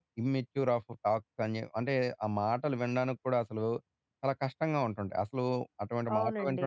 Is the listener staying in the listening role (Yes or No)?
No